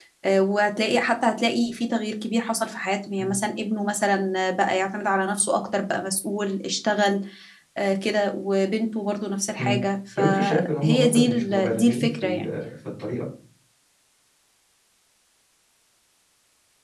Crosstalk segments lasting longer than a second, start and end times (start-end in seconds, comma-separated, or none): 10.2-12.4